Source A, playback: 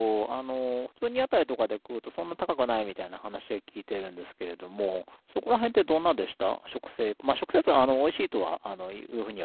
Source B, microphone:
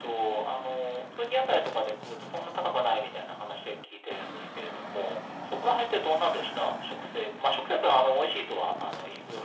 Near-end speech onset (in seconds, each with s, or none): none